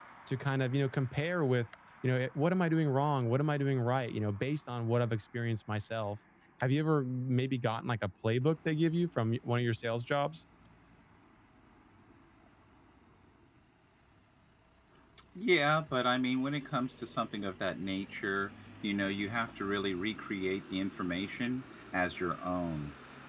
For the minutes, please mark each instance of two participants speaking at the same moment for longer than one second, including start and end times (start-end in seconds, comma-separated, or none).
none